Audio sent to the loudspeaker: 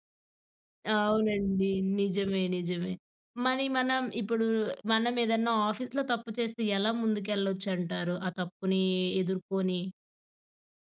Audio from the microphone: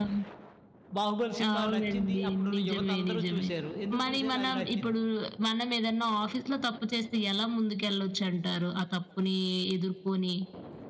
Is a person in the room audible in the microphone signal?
Yes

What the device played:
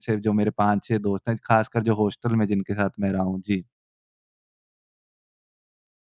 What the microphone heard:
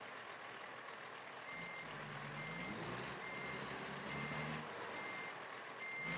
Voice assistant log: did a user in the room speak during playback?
No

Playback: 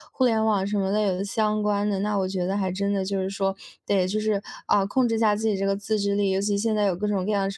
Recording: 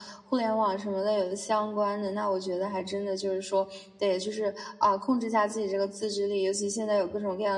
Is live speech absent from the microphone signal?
Yes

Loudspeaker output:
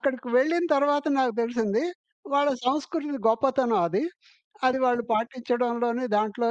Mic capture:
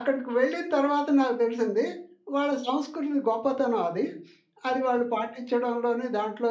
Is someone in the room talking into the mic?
No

